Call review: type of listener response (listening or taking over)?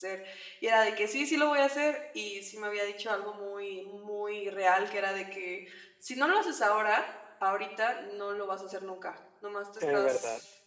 listening